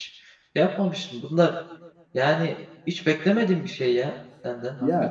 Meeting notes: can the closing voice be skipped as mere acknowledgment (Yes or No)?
No